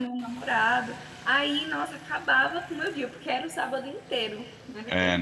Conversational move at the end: taking over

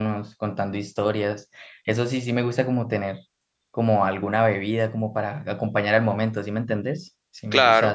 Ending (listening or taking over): taking over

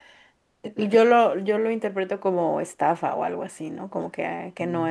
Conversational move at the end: taking over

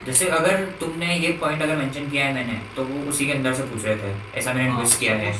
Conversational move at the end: taking over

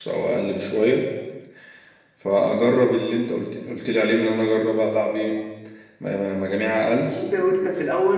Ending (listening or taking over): taking over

